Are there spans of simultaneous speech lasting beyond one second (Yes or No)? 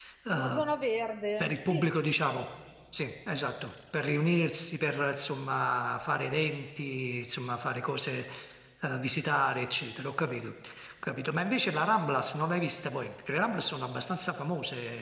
No